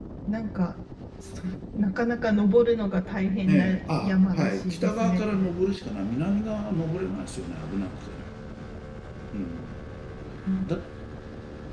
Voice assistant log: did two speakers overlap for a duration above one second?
Yes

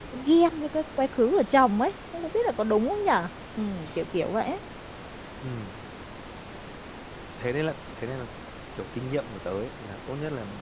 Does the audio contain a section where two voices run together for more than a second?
No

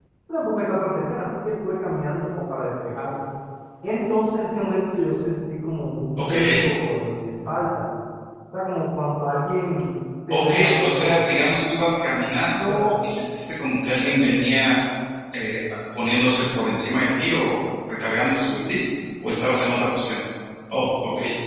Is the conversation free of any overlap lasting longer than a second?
No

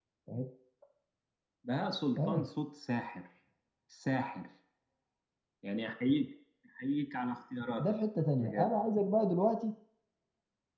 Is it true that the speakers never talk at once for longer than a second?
Yes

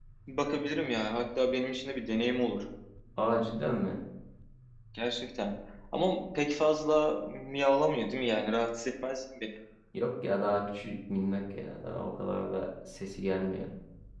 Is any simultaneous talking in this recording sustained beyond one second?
No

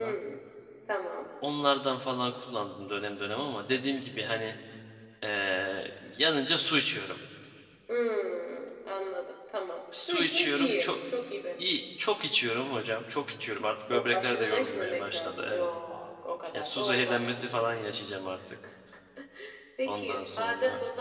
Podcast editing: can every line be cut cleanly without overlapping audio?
No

